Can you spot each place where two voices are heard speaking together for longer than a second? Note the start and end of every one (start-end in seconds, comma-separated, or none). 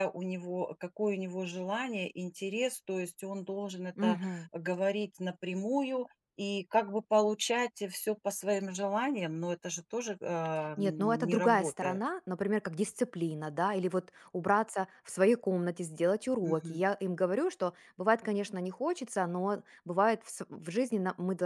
10.8-12.0